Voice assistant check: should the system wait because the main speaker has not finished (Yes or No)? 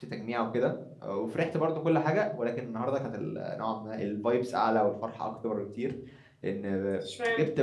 Yes